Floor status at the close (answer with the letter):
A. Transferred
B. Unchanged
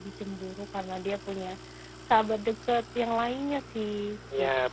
A